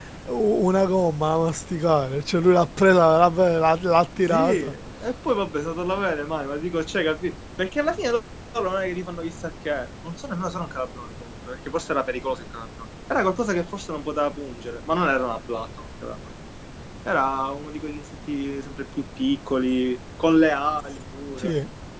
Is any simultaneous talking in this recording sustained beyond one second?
No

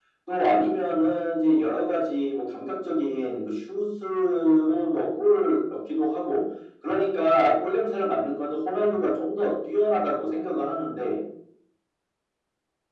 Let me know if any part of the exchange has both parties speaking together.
No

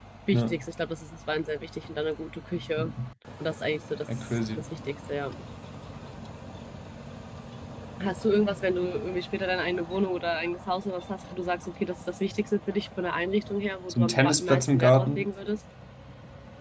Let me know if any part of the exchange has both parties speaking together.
Yes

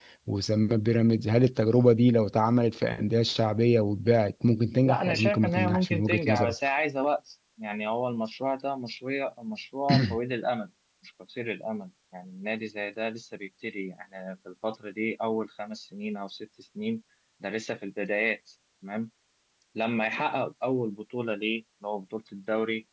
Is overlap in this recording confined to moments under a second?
No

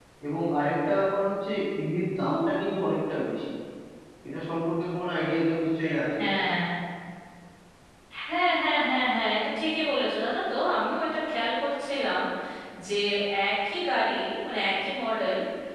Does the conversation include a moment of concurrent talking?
No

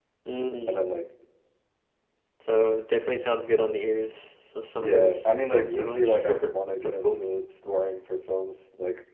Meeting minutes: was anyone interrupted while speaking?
Yes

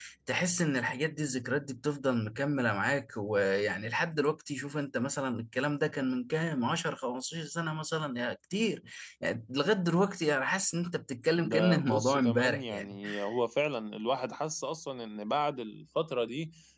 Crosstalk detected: Yes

